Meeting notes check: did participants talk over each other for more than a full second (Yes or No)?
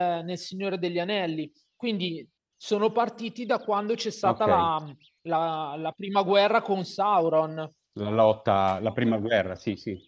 No